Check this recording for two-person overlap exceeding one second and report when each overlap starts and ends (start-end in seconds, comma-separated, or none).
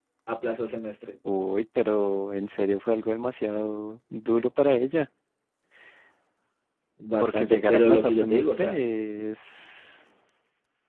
7.2-8.8